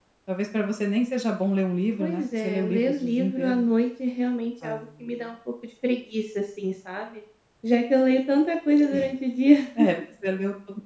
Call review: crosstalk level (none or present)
present